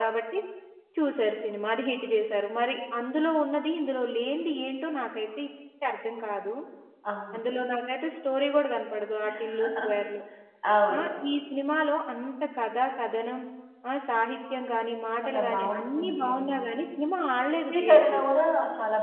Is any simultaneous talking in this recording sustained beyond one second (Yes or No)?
Yes